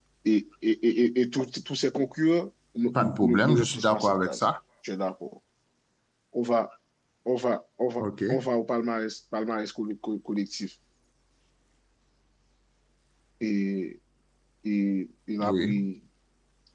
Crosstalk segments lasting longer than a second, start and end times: 2.9-4.5

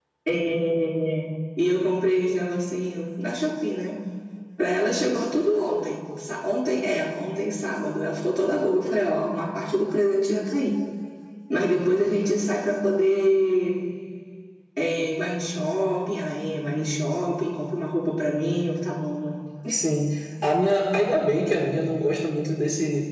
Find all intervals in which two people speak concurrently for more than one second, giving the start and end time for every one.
none

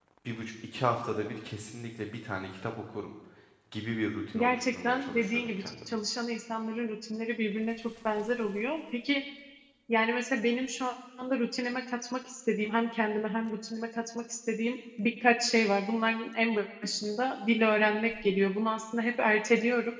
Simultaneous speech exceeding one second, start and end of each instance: 4.4-6.0

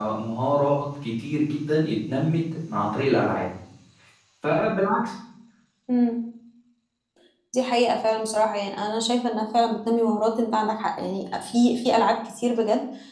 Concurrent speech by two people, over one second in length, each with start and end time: none

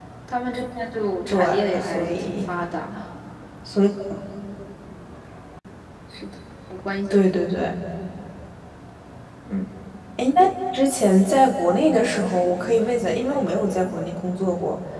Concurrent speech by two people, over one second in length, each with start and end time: 1.3-2.5

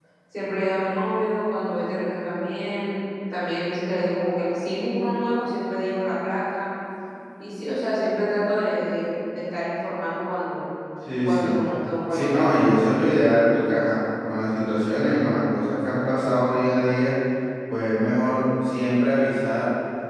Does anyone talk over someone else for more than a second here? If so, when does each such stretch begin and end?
none

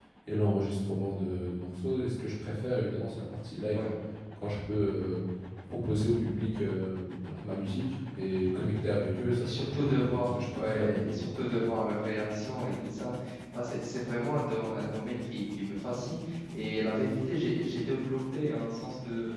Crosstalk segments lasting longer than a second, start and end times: 9.4-11.2

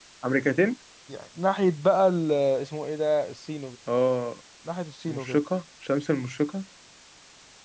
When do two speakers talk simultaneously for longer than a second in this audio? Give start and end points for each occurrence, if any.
none

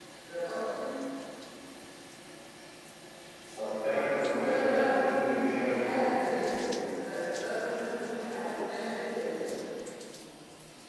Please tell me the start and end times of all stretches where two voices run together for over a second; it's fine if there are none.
4.4-6.5

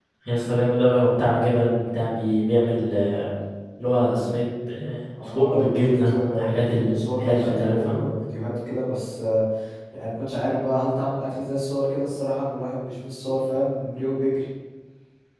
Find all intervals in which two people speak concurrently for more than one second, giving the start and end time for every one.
5.3-8.0

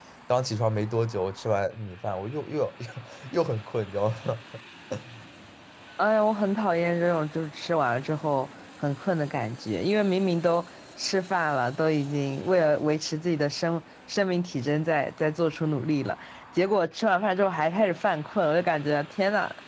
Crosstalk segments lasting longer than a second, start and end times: none

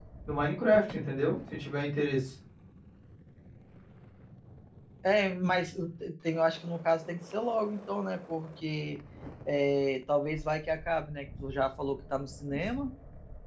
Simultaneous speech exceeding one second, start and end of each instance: none

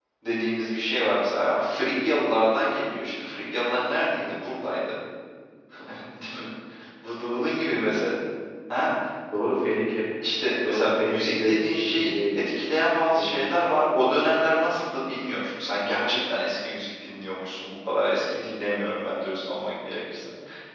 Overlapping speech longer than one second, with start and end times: 10.6-12.5

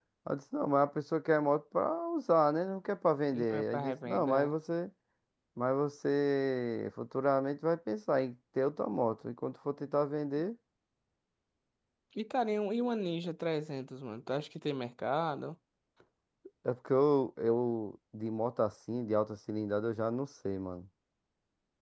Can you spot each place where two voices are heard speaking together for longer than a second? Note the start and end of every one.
3.3-4.5

